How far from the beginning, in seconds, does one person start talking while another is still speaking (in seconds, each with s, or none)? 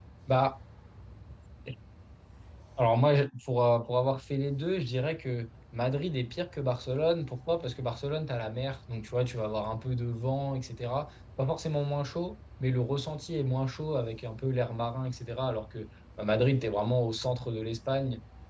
none